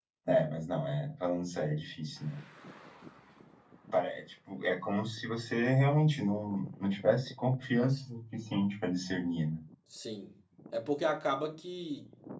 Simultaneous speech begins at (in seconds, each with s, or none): none